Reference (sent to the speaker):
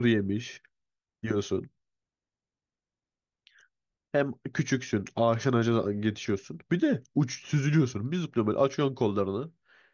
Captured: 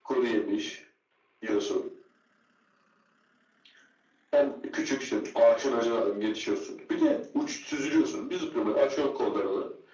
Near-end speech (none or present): none